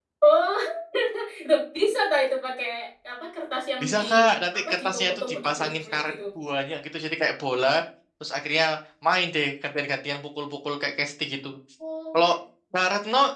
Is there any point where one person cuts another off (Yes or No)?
Yes